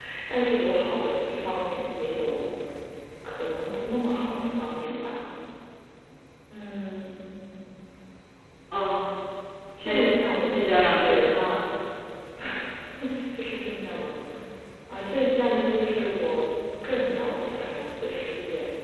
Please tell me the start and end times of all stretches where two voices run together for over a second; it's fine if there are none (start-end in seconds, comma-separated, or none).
9.8-11.3